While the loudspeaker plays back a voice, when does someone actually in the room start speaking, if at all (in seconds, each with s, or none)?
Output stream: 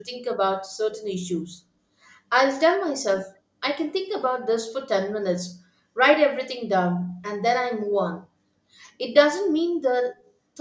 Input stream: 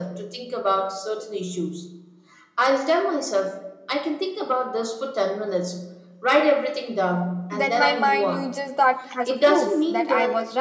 7.5 s